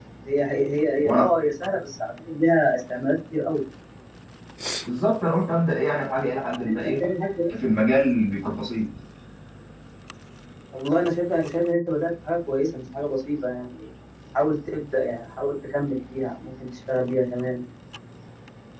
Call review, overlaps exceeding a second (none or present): none